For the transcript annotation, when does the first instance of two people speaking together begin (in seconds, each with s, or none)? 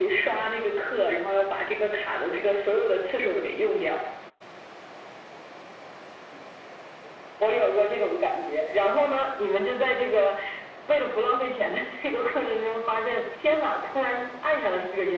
none